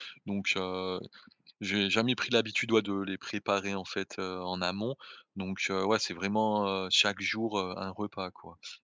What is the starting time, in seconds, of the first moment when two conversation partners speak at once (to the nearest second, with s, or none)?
none